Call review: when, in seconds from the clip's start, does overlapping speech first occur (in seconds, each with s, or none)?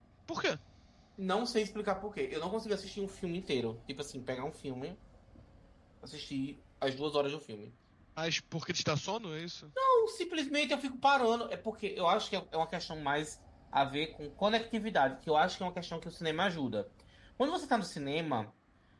none